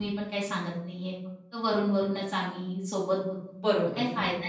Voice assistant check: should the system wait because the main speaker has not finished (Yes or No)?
No